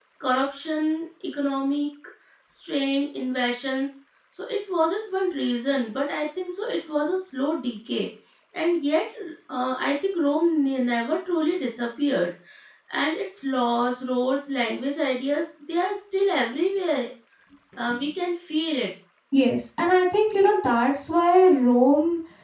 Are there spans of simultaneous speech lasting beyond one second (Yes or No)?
No